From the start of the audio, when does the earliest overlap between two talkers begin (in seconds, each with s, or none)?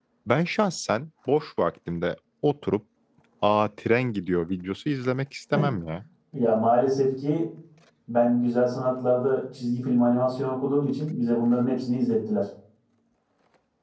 none